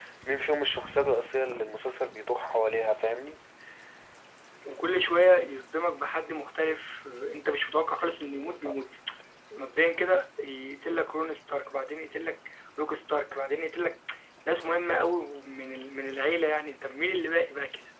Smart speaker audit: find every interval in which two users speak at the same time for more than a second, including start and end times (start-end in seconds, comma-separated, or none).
none